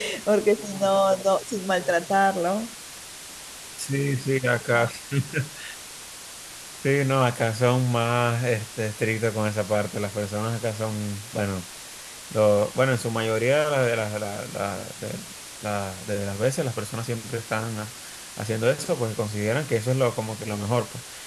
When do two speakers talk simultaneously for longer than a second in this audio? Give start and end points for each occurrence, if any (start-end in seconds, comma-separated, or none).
none